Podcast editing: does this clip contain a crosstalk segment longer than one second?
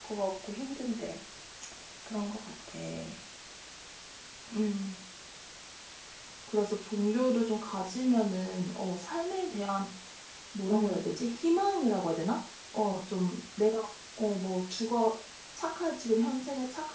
No

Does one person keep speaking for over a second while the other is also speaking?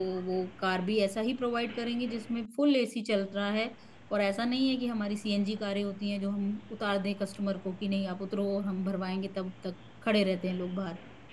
No

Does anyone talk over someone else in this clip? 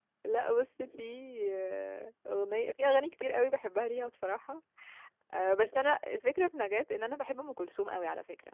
No

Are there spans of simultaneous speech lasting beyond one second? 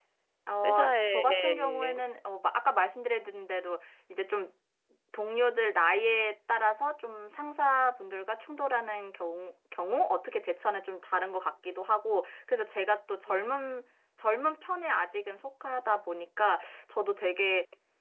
Yes, from 0.6 s

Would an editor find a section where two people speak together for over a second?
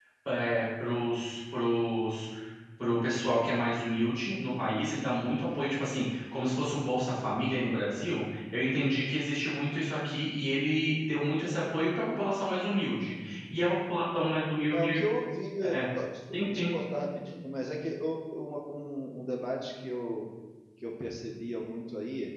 No

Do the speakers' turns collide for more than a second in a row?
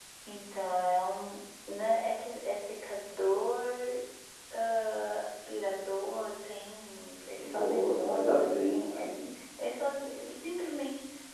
Yes, from 7.4 s

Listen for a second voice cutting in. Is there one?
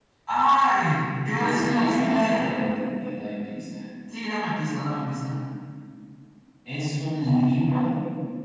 Yes, from 1.2 s

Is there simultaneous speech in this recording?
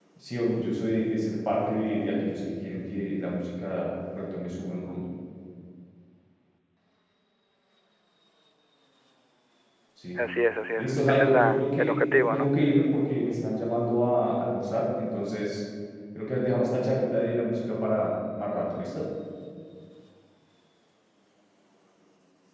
Yes, from 10.8 s

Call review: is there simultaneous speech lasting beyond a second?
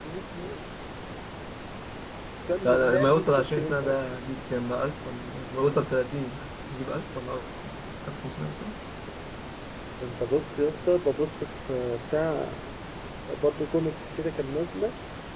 Yes, from 2.6 s

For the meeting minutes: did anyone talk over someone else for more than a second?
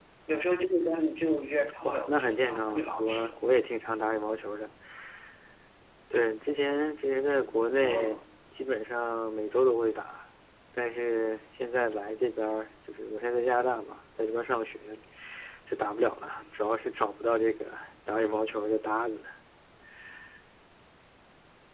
Yes, from 1.8 s

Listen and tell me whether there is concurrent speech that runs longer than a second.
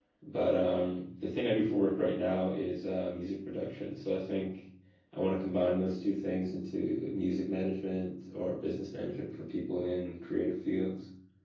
No

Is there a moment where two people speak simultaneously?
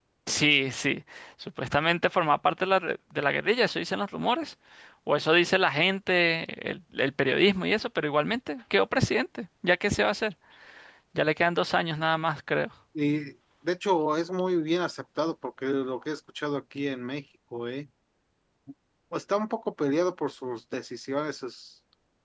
No

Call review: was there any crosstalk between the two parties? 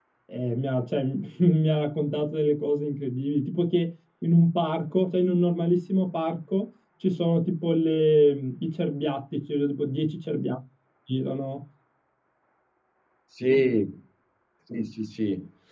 No

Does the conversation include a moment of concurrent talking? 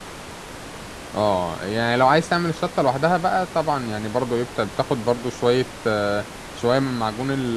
No

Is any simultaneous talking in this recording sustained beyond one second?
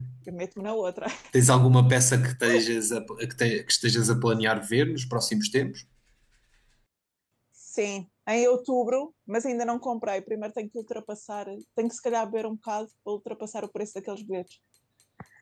No

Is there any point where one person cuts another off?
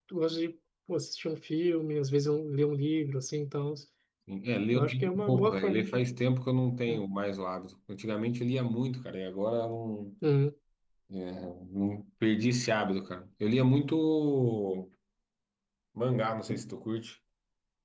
Yes, from 4.7 s

